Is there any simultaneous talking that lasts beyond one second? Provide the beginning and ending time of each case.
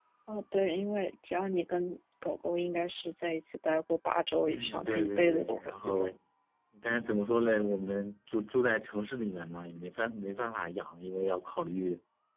4.4-6.1

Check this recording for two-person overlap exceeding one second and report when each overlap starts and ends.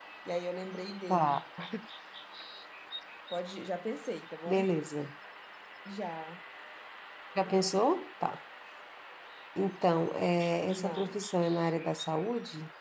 none

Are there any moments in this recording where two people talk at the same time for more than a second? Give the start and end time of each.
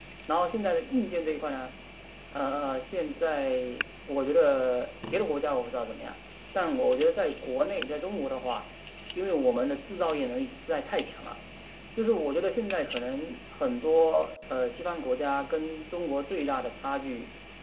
none

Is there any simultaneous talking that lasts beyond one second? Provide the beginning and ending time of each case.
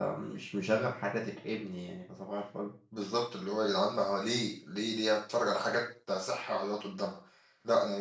none

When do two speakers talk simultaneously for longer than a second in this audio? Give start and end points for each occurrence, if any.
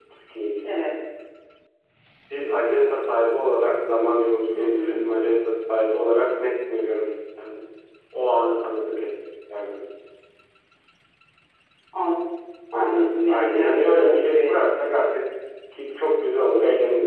12.7-15.2

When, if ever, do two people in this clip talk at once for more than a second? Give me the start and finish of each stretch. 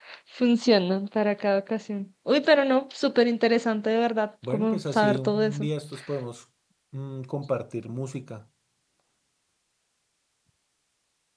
4.4-5.7

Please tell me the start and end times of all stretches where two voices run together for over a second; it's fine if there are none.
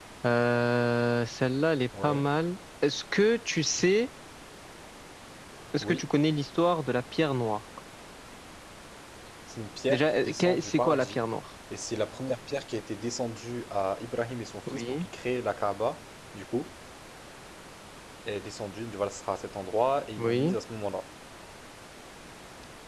9.9-11.2

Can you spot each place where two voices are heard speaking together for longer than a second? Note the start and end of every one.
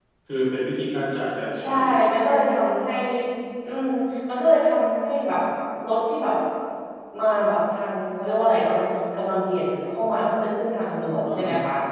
none

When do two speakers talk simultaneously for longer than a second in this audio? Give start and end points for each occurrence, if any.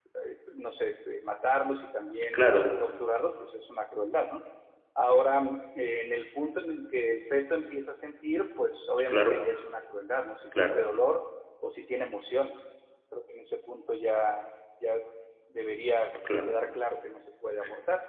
none

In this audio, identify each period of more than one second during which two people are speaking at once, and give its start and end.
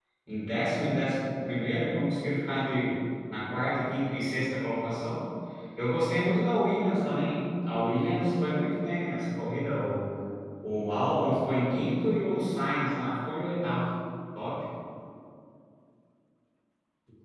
none

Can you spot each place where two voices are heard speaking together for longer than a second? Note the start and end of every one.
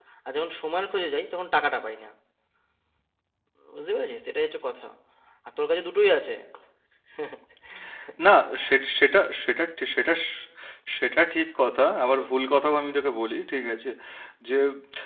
none

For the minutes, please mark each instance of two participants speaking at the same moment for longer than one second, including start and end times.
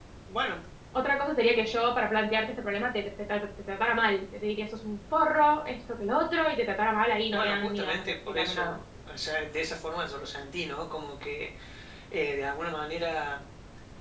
7.3-8.8

